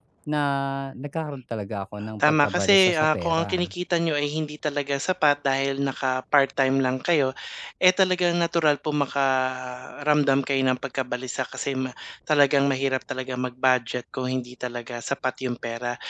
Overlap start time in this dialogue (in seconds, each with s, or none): 2.2 s